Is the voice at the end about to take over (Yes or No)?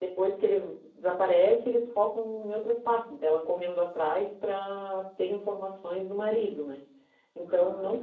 No